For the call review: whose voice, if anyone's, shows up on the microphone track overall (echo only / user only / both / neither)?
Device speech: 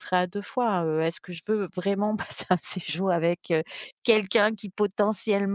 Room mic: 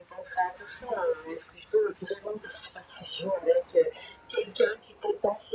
echo only